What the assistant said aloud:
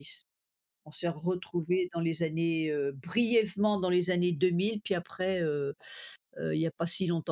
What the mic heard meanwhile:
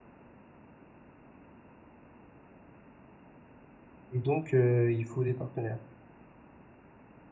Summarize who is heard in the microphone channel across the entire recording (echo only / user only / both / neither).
user only